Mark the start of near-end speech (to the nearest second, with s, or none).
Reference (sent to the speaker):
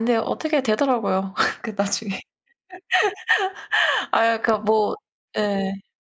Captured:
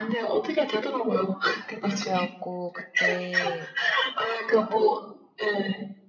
2 s